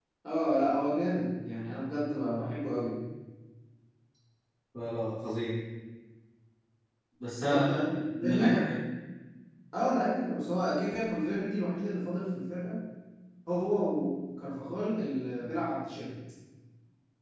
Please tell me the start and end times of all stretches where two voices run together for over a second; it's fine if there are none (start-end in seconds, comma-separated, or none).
7.4-8.7